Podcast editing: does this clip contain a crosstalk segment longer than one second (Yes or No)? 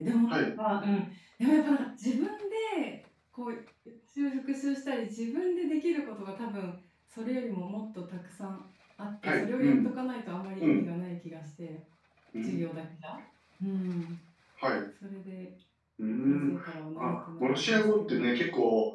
Yes